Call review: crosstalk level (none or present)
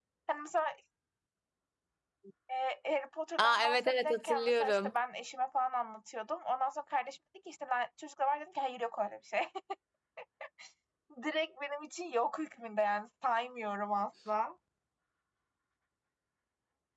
present